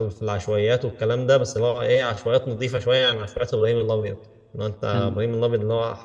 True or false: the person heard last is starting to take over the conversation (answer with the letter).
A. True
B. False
B